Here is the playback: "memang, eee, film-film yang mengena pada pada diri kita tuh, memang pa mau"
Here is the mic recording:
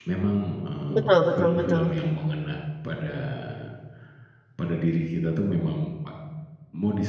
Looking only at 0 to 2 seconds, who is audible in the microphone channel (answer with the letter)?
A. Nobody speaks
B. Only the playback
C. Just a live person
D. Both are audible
D